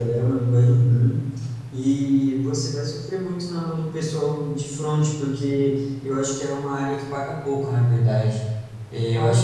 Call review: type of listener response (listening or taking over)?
listening